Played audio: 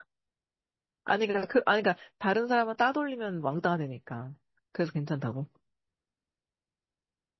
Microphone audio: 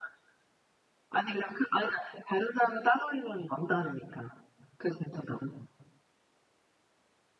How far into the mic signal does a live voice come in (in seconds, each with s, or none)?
none